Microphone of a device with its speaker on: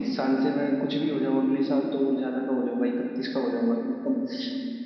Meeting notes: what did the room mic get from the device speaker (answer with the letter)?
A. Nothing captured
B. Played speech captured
B